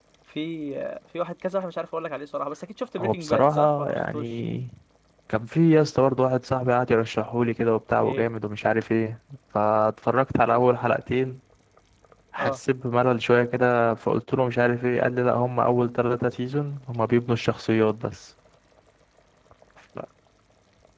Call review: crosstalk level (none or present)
present